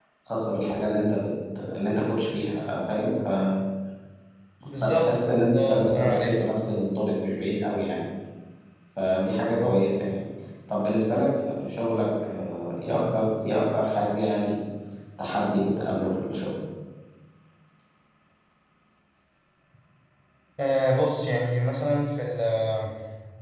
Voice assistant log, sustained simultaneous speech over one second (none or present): present